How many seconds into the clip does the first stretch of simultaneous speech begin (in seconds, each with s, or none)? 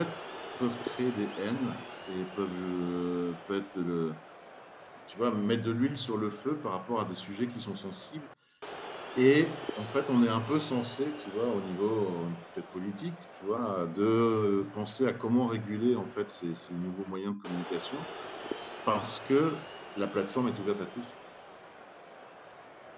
none